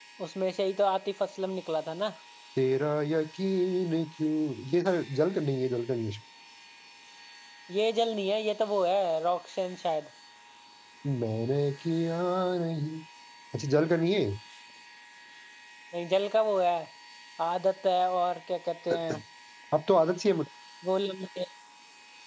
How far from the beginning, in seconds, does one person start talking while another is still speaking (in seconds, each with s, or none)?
none